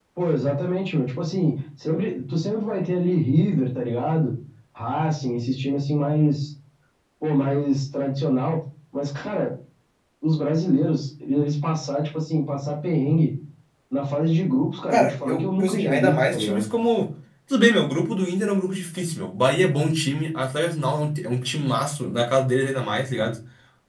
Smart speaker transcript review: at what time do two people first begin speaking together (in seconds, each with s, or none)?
14.9 s